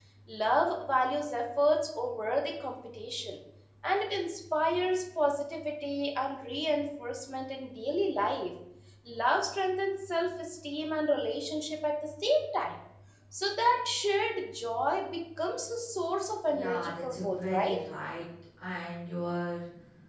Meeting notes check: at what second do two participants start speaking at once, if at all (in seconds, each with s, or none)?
16.5 s